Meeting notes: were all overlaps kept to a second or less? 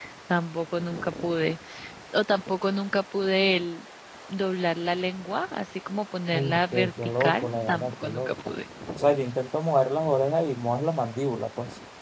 No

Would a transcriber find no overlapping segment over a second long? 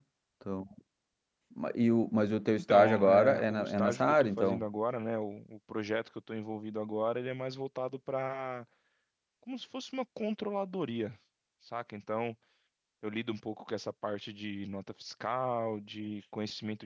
No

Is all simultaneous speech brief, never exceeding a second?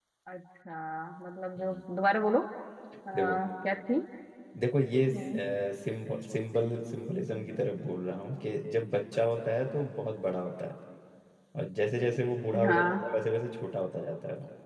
Yes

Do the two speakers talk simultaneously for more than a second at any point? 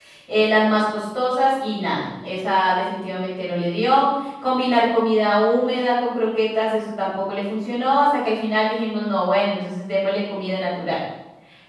No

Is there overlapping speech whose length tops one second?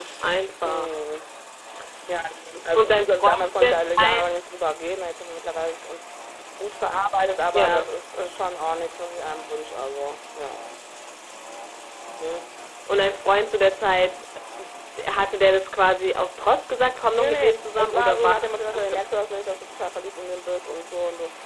Yes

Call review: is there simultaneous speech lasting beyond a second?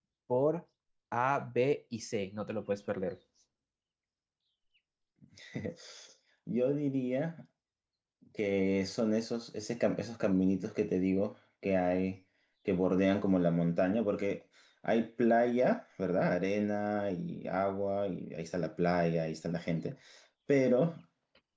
No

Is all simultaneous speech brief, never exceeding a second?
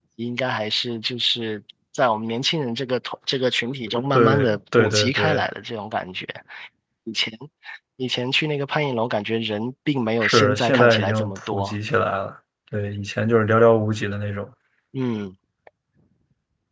No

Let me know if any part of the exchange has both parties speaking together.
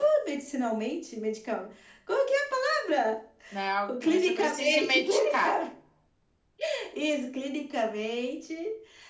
Yes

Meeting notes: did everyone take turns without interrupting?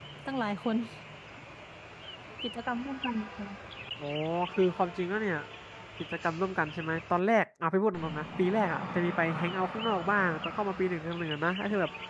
Yes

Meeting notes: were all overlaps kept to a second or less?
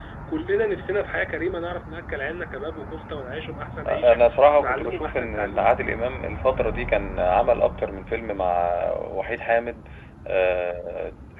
No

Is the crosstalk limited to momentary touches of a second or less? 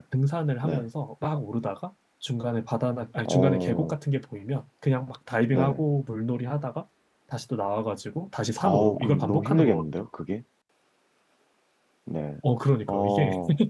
No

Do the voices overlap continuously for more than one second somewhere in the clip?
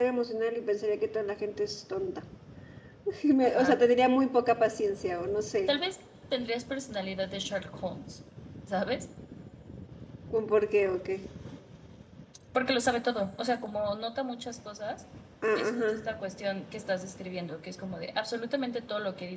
No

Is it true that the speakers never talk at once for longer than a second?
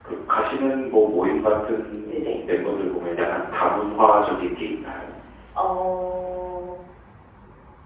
Yes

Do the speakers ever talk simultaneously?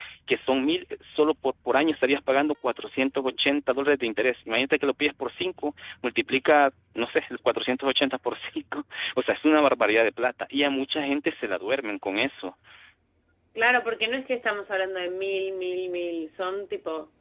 No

